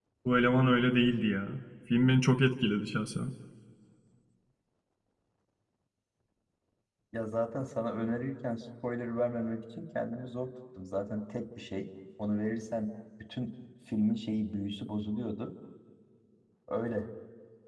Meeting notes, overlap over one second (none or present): none